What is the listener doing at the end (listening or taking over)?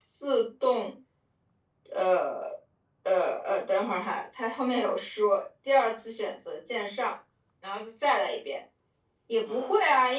listening